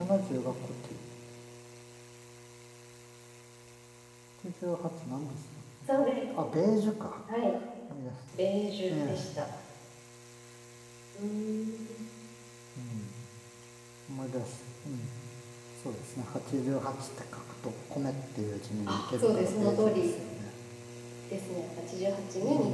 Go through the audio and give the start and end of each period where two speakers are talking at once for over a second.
18.9-20.1

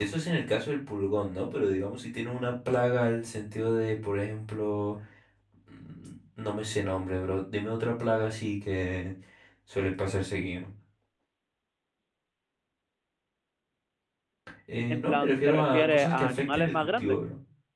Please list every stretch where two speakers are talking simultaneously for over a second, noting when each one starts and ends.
14.9-17.2

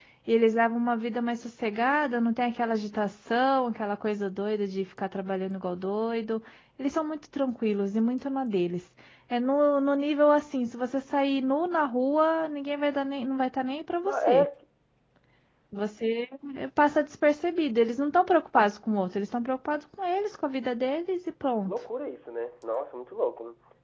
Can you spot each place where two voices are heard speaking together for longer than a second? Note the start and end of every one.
none

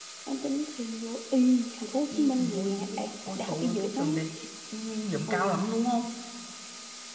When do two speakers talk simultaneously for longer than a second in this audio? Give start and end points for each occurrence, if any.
2.1-4.0

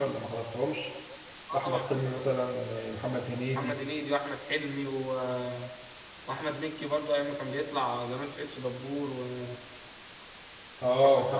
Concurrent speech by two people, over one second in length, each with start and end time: none

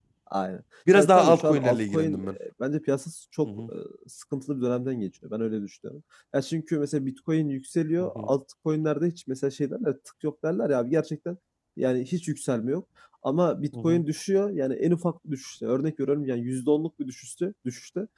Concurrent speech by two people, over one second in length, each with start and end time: 0.9-2.3

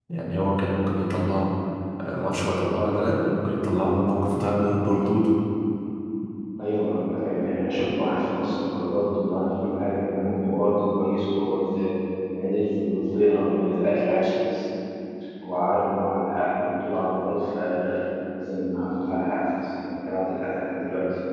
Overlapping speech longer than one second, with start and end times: none

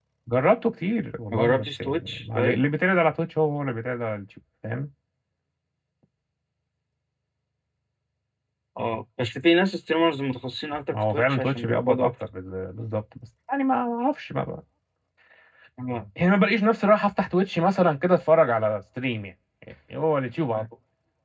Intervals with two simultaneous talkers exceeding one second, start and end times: 1.3-2.6, 10.9-12.1

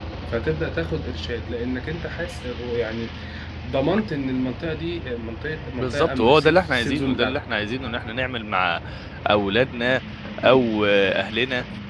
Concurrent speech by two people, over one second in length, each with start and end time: 5.8-7.4

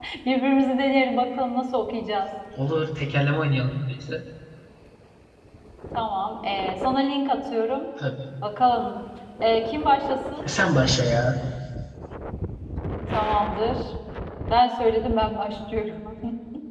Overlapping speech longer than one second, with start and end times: none

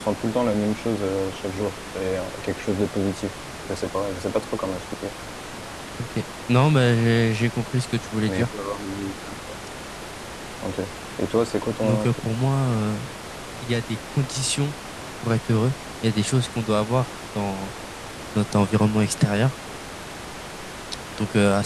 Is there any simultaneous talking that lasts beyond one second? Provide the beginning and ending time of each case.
none

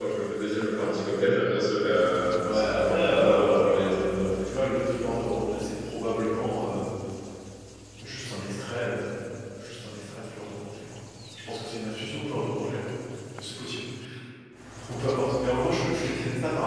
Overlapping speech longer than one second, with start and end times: 2.4-4.3

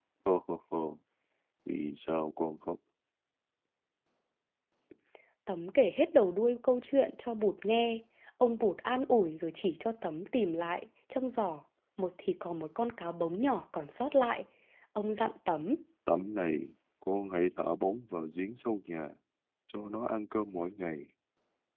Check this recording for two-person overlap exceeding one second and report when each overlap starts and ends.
none

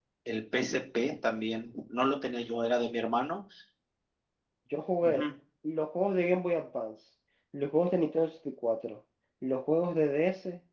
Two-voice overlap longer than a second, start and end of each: none

